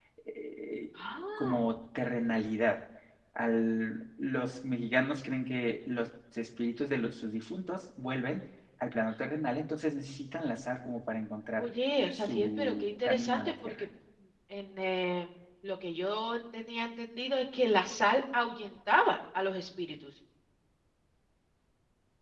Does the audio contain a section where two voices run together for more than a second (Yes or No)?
Yes